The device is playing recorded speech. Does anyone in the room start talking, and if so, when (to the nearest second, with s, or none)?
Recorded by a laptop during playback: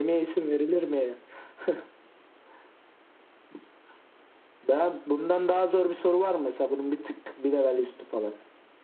none